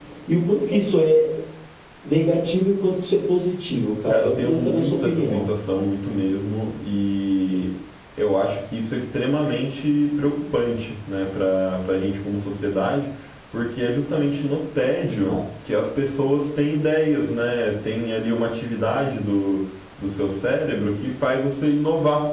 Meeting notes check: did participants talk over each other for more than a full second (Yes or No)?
Yes